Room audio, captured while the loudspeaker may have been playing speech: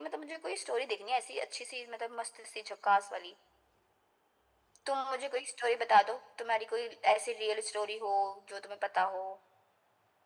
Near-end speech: none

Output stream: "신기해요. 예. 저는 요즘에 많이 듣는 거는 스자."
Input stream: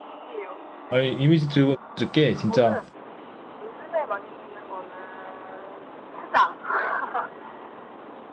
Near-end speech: present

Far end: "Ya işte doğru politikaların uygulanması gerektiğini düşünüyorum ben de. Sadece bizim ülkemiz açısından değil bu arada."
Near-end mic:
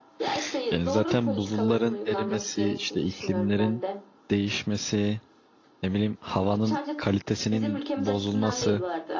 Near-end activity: present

